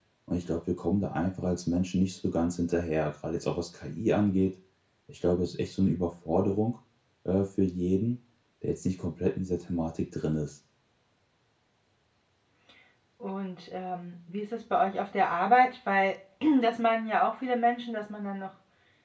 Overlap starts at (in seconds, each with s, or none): none